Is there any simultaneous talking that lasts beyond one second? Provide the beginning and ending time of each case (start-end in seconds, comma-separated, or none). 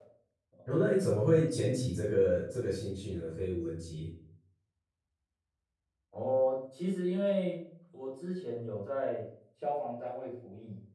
none